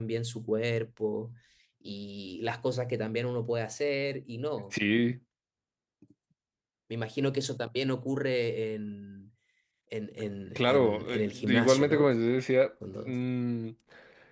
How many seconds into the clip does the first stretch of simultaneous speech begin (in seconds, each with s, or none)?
10.6 s